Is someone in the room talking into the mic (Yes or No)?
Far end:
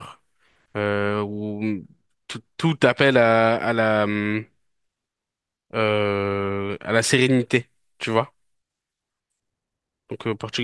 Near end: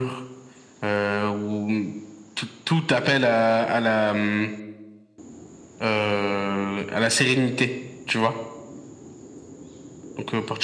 No